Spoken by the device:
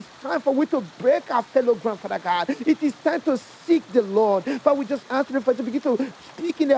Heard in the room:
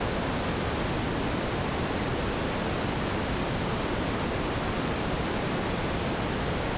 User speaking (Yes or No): No